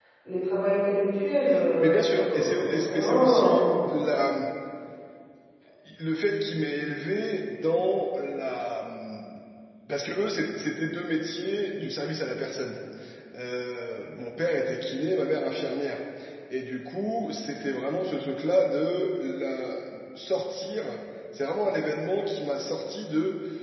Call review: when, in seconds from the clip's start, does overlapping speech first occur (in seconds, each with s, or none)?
1.6 s